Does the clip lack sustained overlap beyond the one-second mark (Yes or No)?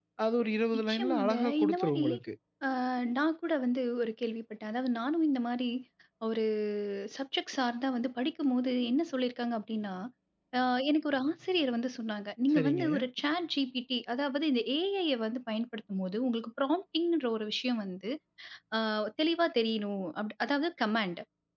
No